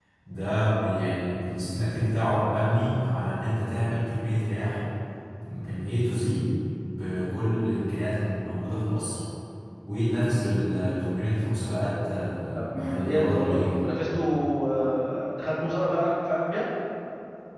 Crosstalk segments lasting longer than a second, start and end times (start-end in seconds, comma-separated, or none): 12.6-13.8